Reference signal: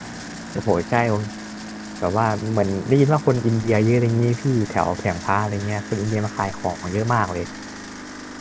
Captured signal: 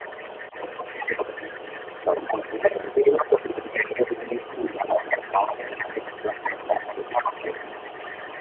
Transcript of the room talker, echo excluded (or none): none